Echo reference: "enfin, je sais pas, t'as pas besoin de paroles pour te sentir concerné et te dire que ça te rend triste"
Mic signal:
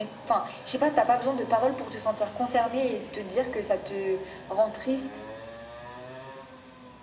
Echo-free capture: No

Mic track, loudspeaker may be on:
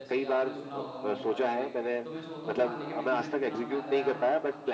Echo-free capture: No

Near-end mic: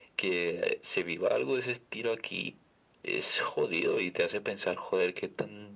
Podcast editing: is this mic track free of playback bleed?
No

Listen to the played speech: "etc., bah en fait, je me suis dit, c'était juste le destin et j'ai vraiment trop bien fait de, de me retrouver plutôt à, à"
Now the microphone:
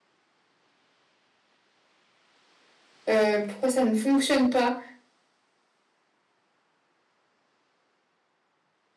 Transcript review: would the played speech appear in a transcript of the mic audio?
No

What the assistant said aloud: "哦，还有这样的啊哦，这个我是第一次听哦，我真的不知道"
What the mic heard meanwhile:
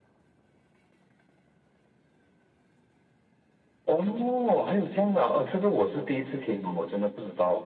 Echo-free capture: No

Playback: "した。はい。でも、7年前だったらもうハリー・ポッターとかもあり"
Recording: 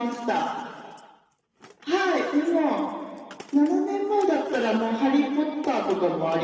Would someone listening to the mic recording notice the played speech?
Yes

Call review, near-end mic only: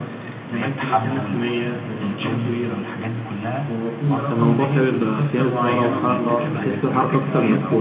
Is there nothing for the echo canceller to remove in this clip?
No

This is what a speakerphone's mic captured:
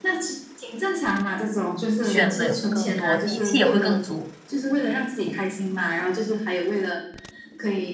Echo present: Yes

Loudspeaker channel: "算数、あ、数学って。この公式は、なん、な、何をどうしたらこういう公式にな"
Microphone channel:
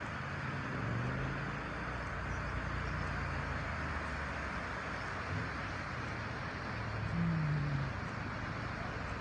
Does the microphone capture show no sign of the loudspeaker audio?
Yes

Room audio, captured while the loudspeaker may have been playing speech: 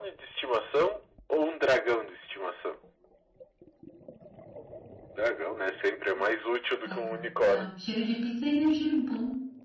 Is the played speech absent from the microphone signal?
No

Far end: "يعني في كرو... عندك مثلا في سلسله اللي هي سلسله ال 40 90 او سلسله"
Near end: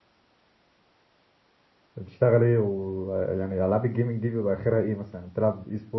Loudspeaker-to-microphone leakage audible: No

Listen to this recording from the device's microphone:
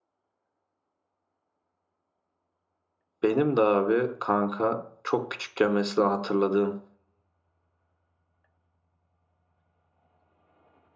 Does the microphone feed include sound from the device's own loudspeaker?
No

